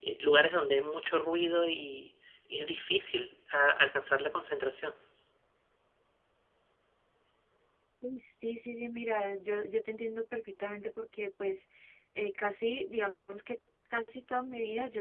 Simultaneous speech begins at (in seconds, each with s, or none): none